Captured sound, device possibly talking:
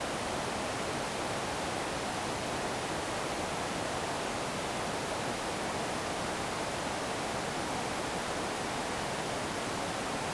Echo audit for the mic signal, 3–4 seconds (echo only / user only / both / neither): neither